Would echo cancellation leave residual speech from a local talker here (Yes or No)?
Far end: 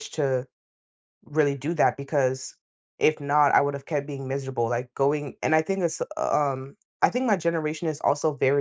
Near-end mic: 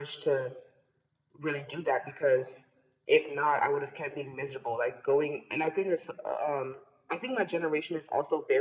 No